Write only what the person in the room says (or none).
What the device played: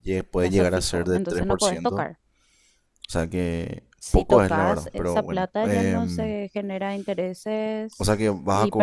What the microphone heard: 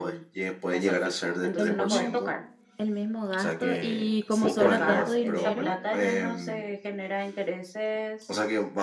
el mismo, el mismo gasto? Y como sobra tanto dinero,